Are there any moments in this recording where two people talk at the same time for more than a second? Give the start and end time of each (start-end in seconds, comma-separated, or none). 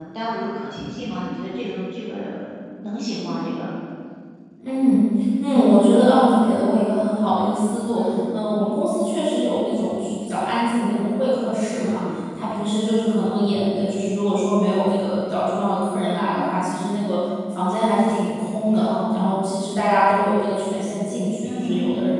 none